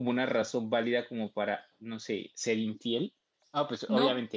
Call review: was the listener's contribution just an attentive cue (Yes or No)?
Yes